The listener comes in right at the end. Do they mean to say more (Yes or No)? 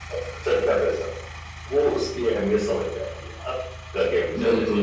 Yes